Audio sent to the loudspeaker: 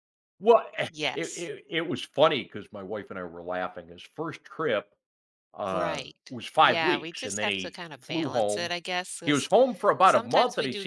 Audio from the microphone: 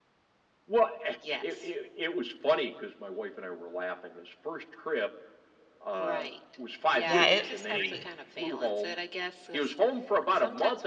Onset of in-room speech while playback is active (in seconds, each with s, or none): 7.0 s